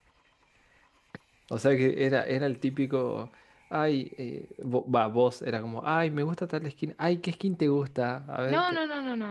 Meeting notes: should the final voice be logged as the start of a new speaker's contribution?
Yes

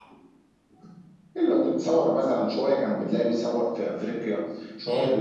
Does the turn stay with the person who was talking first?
Yes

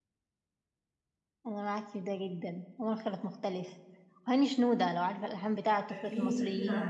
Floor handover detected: Yes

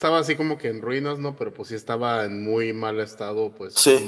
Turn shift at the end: No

